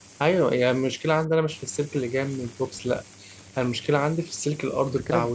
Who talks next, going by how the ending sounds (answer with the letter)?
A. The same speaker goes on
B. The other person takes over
B